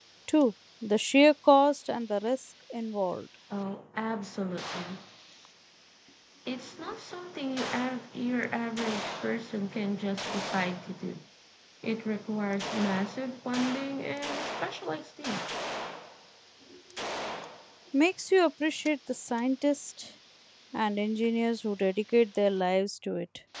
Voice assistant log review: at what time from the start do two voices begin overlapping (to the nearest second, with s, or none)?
none